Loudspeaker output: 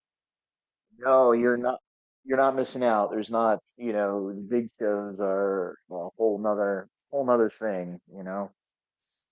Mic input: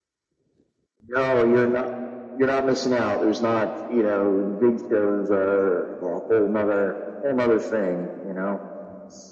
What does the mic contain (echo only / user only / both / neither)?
echo only